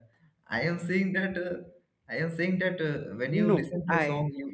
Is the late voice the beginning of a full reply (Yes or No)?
No